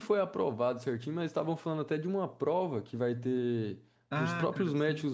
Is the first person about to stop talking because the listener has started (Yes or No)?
Yes